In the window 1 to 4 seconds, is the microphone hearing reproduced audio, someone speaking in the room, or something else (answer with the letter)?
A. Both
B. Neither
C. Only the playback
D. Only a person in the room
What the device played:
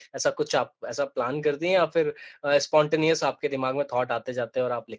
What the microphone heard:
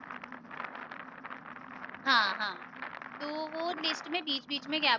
D